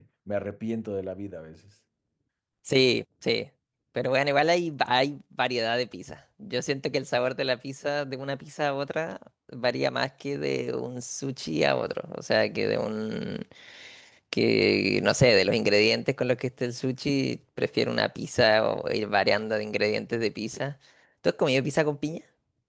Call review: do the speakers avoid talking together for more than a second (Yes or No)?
Yes